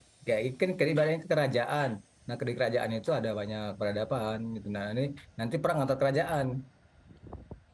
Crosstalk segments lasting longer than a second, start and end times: none

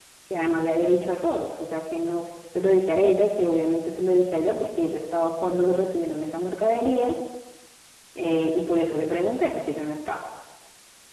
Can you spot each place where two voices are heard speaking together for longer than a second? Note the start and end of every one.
none

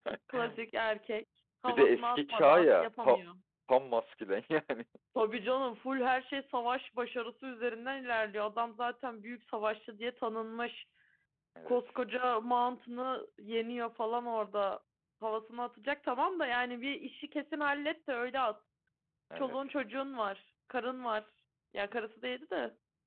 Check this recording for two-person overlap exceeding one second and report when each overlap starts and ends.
1.6-3.2

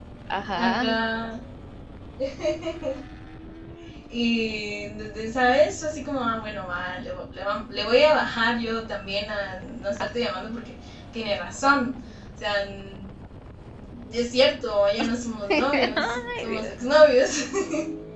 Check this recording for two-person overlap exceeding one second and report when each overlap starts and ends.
15.5-16.7

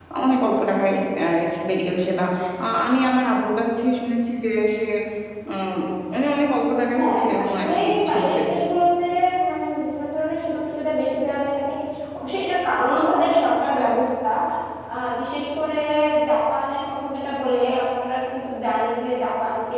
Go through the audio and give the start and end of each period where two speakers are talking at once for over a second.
6.6-8.4

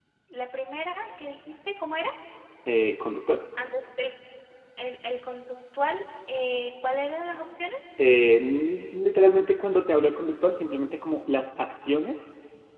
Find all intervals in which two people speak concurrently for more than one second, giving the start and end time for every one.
none

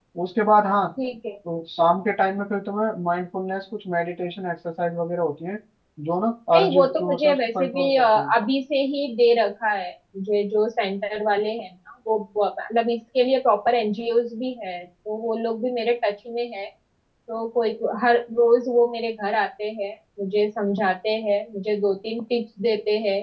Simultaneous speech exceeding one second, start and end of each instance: 6.5-8.3

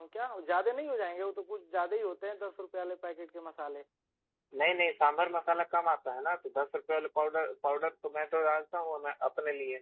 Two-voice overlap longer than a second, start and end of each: none

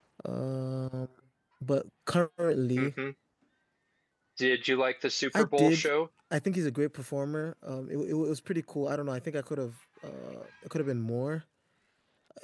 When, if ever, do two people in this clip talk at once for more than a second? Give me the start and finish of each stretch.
none

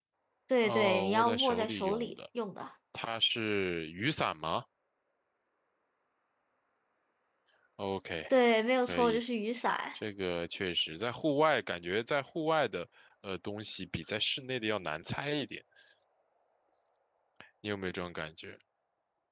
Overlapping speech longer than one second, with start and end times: 0.6-2.1

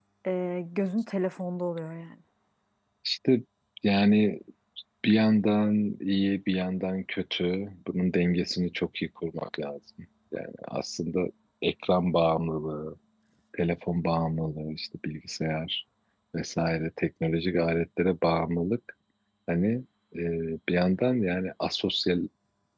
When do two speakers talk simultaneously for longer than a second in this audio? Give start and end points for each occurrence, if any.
none

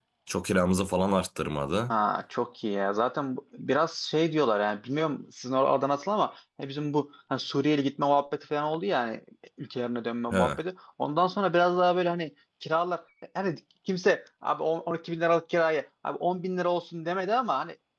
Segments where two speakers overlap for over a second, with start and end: none

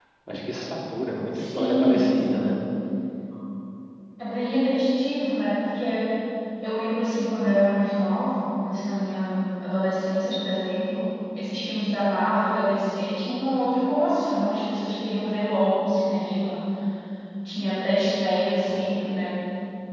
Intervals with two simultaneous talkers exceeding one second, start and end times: 1.3-2.6

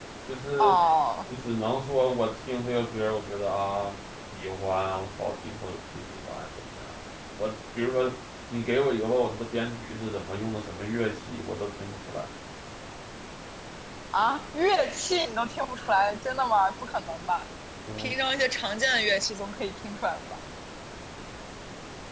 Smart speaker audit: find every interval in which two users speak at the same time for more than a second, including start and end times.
none

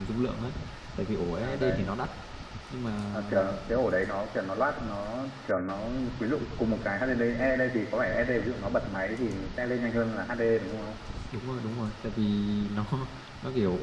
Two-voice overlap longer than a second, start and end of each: none

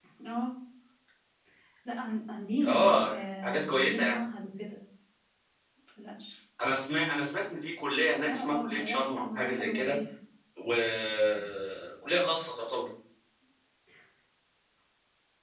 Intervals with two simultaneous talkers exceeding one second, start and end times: 2.6-4.2, 8.3-9.9

